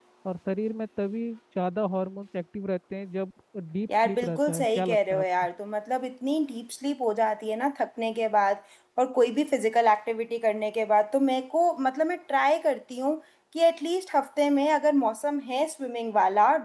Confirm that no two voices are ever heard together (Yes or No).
No